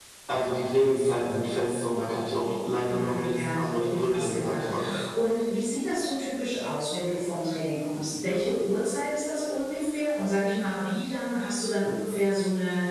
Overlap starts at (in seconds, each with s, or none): 2.9 s